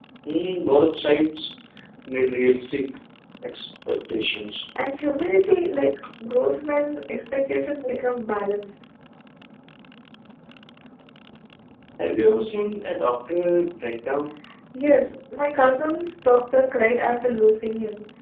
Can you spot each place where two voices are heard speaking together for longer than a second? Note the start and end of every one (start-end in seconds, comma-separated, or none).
none